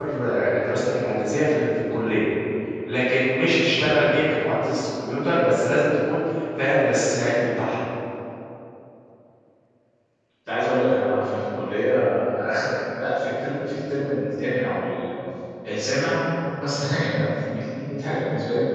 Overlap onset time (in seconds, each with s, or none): none